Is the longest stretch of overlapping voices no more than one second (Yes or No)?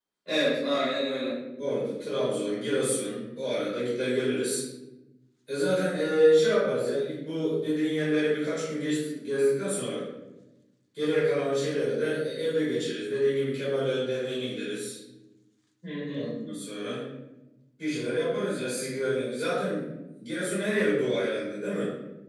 Yes